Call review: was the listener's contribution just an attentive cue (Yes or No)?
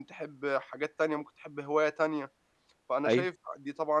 Yes